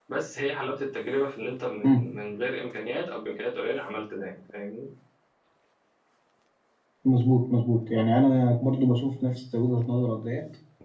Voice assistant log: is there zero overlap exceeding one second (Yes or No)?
Yes